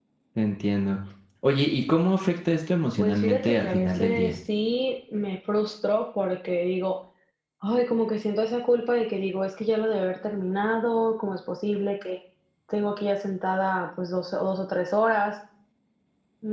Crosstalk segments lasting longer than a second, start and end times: 3.0-4.3

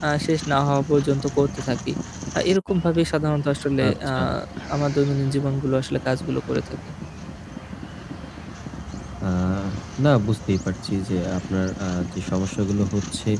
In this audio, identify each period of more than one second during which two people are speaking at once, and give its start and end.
none

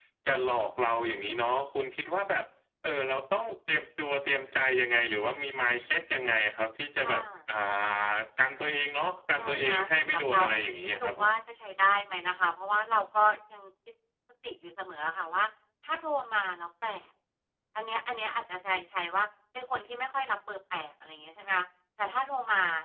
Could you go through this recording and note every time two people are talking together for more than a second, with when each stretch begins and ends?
9.4-11.3

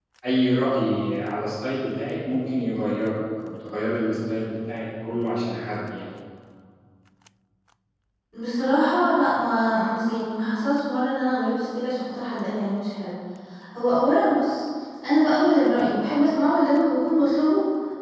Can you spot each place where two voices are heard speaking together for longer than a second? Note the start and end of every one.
none

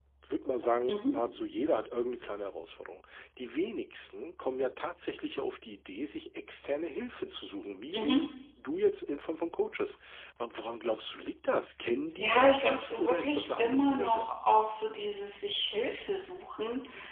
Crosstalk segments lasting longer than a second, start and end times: 12.2-14.3

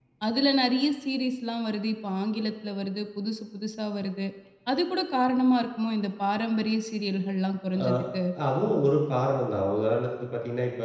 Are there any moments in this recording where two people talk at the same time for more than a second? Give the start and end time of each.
none

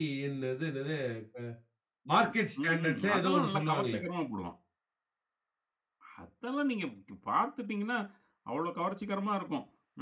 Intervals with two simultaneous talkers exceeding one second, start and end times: 2.6-4.0

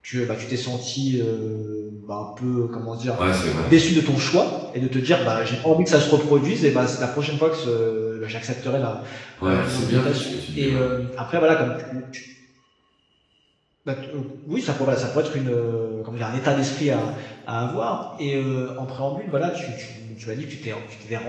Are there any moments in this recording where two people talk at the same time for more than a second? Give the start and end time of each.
9.5-10.8

